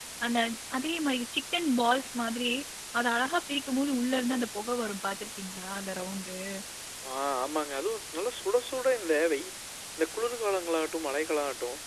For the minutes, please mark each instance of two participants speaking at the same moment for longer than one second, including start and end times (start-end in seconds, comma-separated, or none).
none